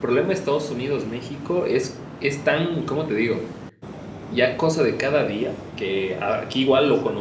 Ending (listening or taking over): listening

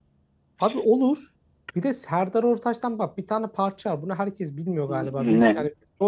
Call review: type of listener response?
listening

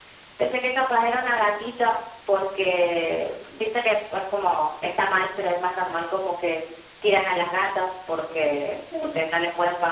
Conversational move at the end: listening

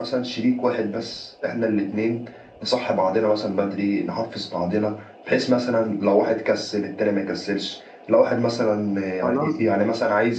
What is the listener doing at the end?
listening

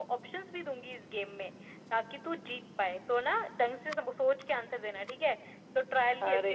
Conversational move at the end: taking over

